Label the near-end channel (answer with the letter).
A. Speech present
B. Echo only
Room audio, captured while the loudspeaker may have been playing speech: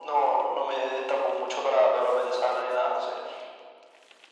B